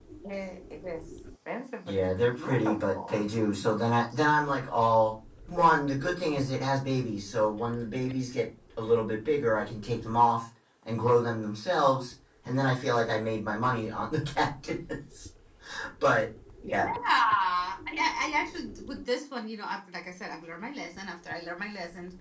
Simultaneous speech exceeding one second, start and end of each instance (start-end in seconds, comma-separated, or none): 1.9-3.2